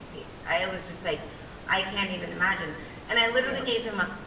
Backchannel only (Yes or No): Yes